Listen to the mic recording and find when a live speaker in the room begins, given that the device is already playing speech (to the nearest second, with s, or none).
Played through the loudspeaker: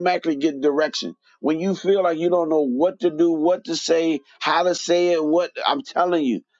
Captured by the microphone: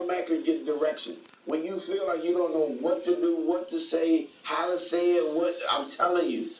none